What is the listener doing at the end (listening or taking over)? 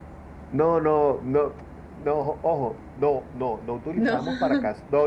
listening